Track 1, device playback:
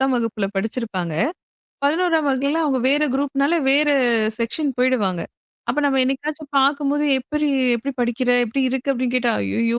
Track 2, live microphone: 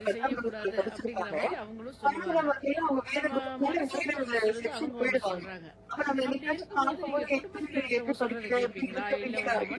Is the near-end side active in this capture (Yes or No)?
Yes